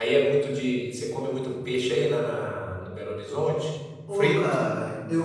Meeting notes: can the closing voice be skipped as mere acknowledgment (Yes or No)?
No